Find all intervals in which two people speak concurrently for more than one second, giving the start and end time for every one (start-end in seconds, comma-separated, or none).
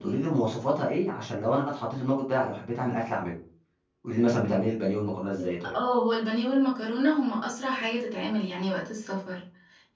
none